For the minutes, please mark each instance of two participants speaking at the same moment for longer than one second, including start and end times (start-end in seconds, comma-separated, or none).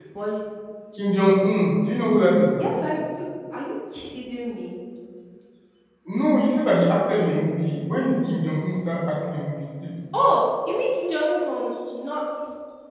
none